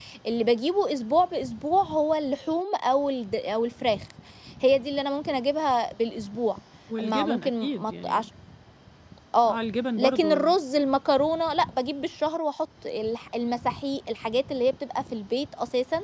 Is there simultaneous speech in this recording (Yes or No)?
Yes